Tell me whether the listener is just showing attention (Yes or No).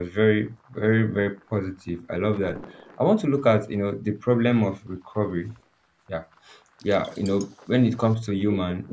Yes